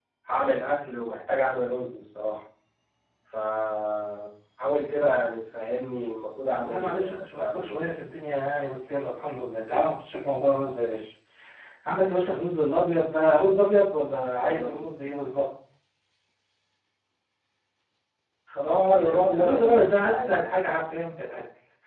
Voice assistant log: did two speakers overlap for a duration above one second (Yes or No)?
Yes